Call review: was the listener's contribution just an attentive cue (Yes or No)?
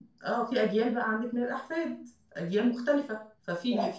Yes